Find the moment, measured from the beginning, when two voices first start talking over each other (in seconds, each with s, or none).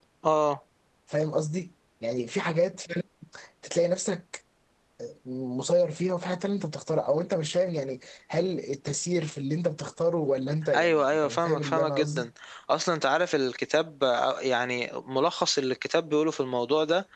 10.7 s